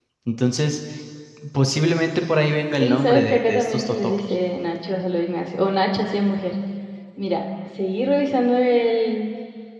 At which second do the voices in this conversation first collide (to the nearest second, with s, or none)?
3 s